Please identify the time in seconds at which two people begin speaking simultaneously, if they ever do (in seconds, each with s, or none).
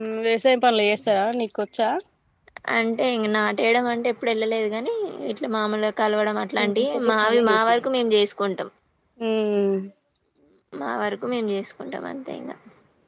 6.6 s